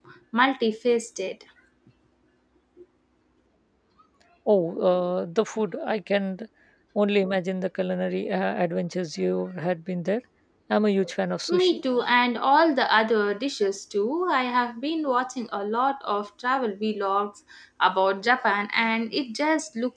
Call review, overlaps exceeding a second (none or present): none